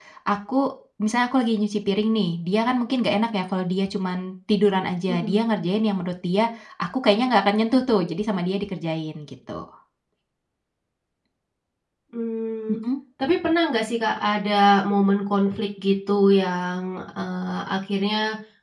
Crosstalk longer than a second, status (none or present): none